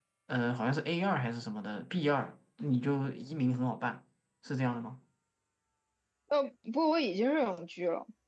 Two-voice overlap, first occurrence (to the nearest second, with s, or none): none